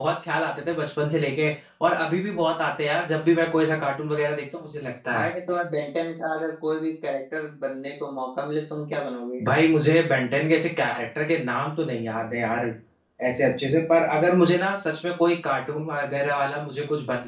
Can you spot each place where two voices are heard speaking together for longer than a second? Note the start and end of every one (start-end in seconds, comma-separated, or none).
none